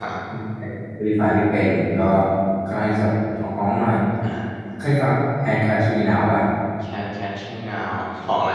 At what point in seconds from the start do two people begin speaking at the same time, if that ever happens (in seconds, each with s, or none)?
none